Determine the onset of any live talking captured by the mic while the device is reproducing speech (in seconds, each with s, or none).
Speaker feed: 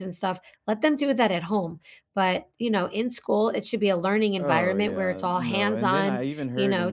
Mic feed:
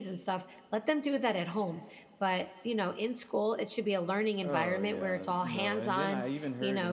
none